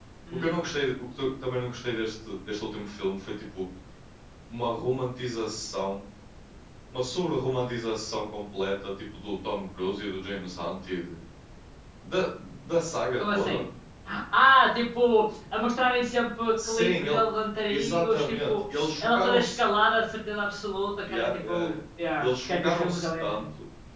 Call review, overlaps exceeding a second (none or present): present